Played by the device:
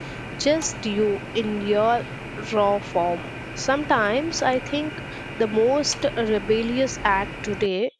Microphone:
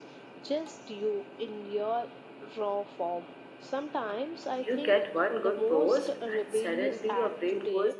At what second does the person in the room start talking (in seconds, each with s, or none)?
4.6 s